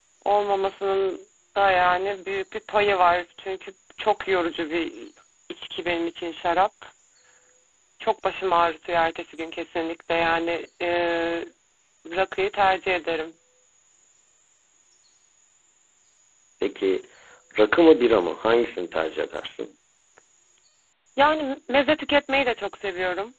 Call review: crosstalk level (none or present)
none